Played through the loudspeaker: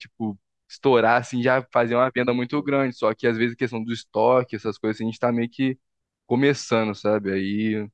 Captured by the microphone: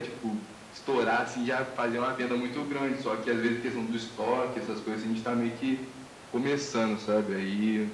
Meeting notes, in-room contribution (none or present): none